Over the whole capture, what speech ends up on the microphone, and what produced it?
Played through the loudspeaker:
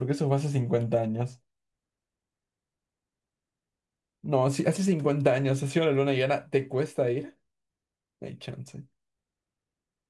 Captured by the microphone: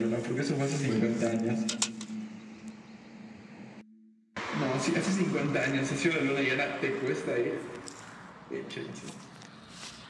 both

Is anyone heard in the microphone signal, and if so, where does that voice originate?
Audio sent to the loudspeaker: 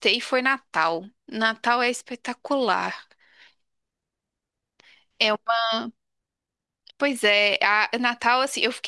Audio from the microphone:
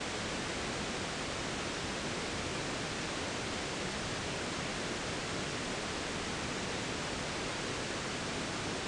neither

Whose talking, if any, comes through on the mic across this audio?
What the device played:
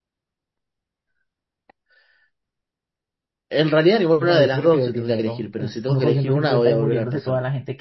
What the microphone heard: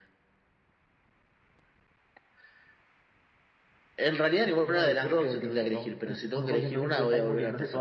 echo only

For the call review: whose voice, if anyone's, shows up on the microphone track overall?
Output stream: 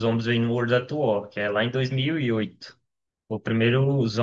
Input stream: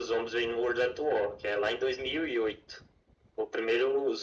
echo only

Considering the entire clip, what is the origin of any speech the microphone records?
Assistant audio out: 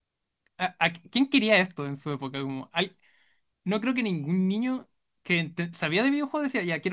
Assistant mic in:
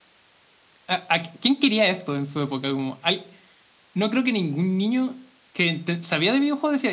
echo only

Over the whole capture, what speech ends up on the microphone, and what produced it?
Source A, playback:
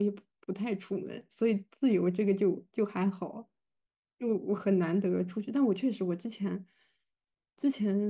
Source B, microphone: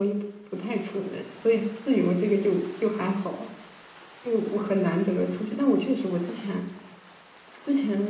echo only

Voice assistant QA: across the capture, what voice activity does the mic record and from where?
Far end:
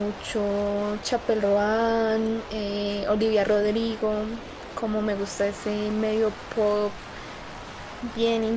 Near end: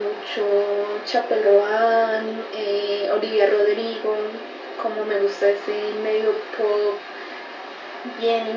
echo only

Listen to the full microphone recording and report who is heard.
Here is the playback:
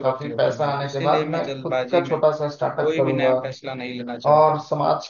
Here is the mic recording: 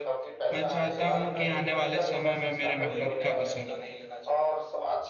both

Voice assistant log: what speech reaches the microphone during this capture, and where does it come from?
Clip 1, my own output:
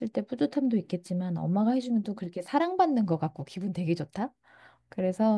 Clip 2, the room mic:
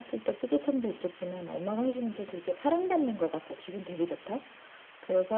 echo only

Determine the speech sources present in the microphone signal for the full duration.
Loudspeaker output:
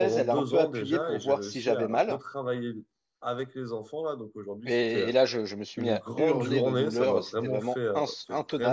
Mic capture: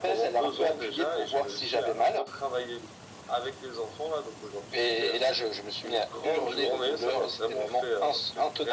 echo only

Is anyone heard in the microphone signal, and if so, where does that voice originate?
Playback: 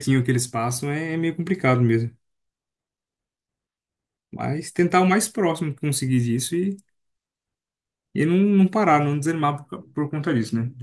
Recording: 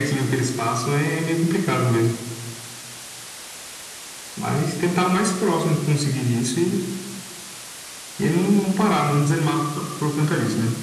echo only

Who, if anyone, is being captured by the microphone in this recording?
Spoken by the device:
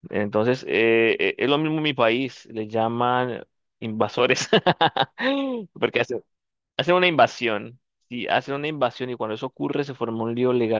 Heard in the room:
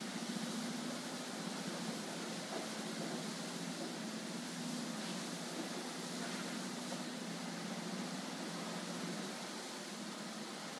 neither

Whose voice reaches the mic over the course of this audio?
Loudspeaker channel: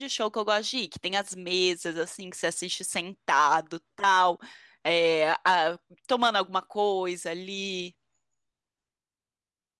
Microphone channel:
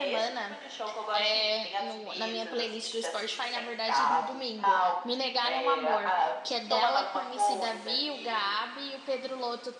both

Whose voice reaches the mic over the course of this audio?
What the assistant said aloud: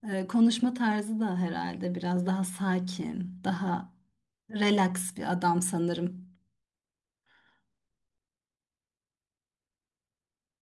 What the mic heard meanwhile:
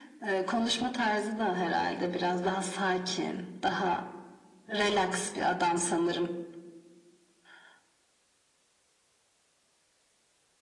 echo only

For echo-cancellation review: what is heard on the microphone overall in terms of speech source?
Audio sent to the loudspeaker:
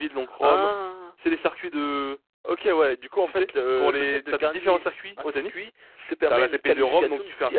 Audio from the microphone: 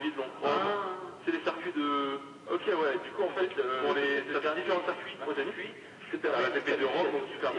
echo only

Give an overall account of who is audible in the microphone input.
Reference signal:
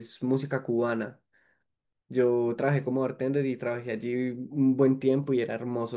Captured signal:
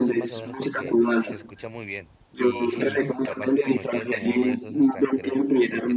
both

